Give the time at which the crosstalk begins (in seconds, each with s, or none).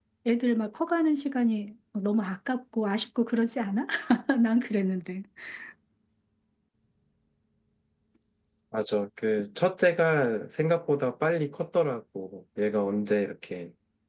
none